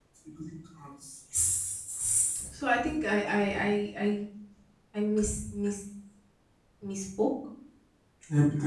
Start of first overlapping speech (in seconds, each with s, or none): none